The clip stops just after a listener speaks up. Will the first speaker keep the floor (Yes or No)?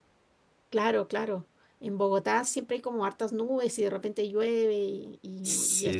No